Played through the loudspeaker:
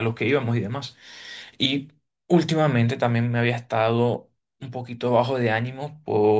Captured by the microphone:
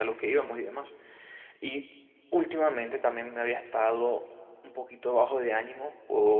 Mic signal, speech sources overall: echo only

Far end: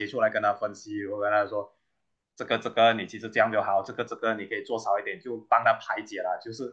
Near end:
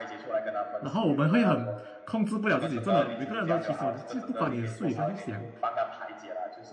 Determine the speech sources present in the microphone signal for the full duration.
both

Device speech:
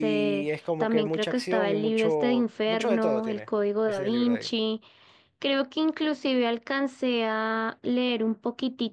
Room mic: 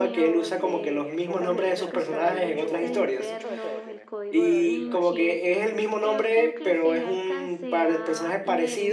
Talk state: both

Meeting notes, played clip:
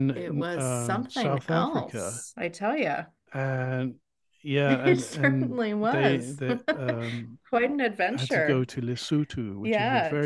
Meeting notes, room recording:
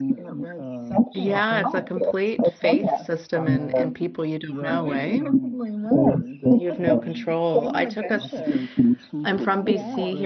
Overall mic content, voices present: both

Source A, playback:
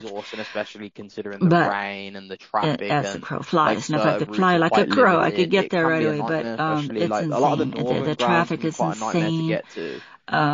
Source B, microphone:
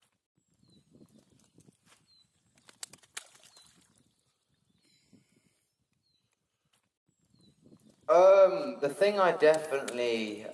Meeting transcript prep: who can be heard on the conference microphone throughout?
user only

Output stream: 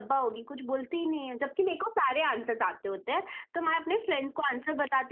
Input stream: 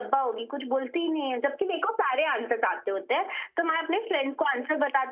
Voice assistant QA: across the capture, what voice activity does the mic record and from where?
echo only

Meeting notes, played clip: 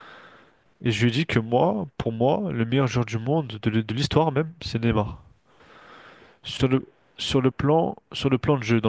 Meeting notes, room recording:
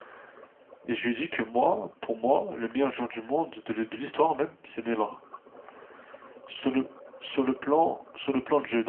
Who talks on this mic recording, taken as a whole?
echo only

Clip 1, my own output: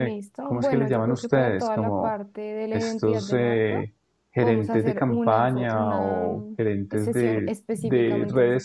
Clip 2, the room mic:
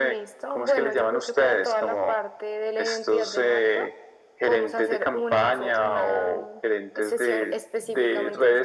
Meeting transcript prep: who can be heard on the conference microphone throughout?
echo only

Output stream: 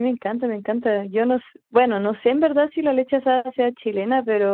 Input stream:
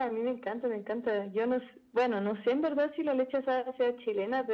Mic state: echo only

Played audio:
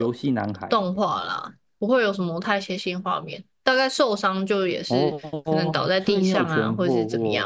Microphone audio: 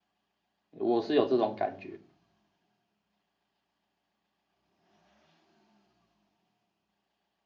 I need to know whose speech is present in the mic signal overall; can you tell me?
user only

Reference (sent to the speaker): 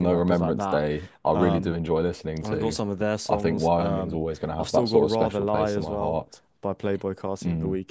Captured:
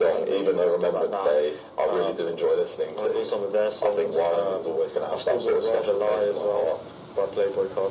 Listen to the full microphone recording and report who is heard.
echo only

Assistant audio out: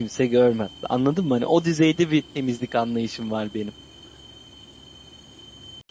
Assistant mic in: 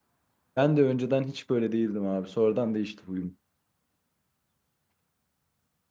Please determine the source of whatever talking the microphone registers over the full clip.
user only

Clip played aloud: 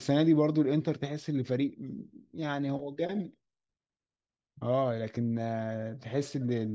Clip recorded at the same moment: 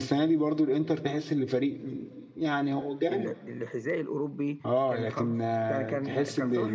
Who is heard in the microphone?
both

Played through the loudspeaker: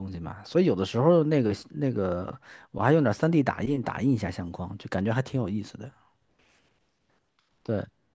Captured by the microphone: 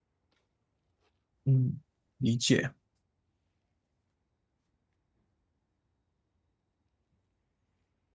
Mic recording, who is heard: user only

